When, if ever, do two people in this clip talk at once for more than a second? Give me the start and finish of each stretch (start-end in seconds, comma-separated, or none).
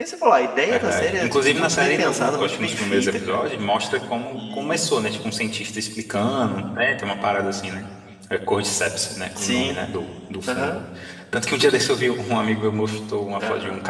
0.7-3.4